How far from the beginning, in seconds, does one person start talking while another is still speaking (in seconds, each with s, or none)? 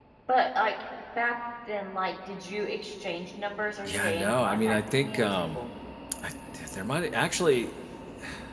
3.9 s